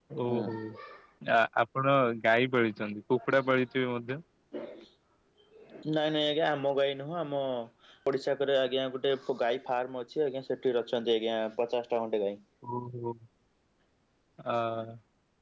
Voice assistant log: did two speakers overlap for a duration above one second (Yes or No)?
No